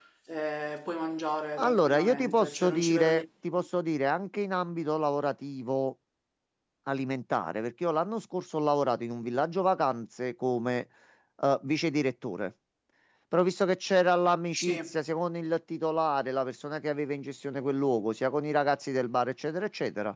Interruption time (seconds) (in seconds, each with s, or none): 1.6 s